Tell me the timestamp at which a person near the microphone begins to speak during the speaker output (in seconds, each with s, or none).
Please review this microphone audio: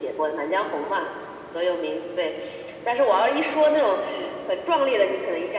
none